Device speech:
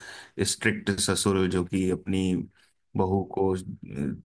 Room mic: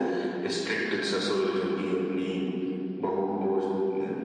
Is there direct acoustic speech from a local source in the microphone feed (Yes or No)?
No